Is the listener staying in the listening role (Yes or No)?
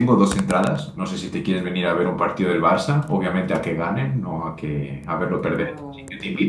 No